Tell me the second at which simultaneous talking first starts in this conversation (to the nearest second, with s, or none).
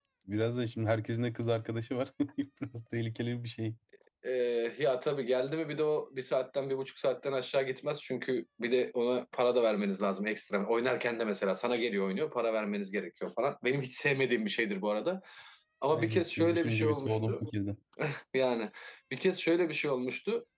16 s